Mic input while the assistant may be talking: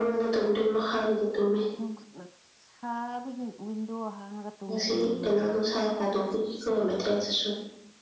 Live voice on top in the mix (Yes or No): No